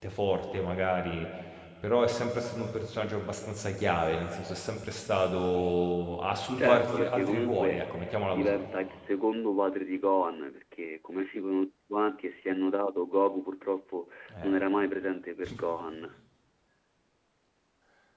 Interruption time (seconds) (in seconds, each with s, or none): 6.6 s